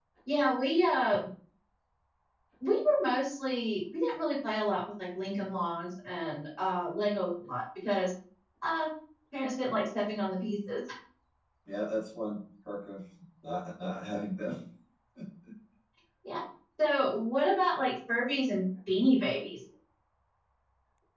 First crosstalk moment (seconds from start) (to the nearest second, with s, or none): none